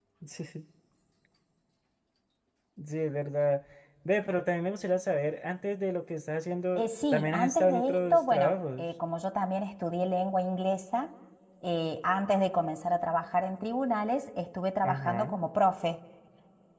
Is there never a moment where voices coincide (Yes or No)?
No